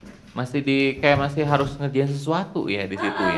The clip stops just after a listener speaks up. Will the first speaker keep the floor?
No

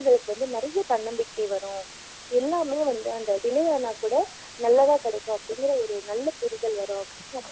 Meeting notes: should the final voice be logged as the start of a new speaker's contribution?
Yes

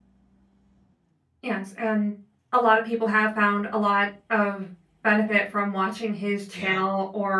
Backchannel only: Yes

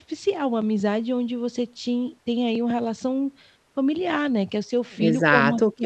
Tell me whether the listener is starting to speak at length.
Yes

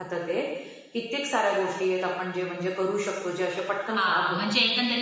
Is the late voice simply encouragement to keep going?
No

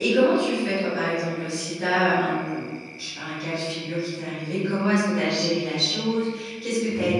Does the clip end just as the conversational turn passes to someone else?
No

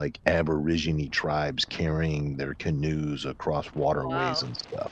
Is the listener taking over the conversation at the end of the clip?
No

